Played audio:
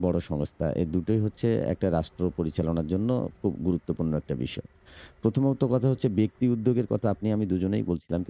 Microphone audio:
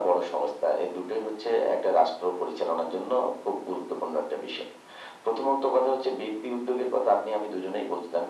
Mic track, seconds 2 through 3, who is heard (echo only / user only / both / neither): echo only